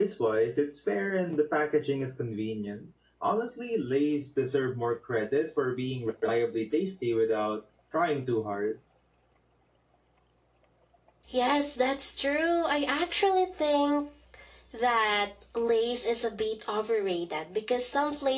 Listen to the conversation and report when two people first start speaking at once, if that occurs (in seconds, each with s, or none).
none